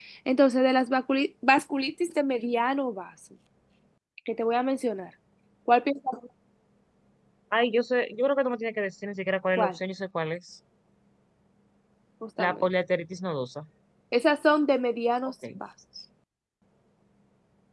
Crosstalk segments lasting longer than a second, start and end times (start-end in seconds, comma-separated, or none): none